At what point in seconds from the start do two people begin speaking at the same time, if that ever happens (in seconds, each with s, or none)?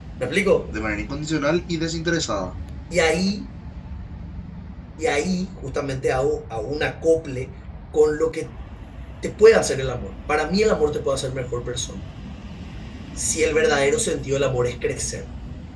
none